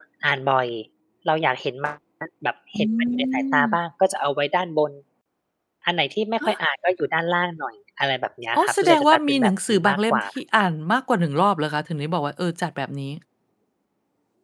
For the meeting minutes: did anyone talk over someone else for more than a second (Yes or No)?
Yes